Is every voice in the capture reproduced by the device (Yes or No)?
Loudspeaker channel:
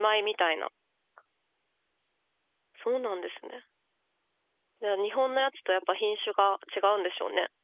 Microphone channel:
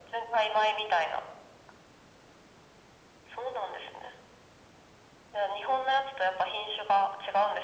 Yes